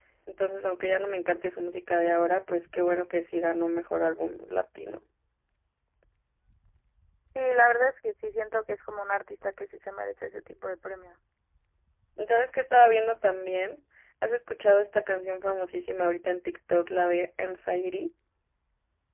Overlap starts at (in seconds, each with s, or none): none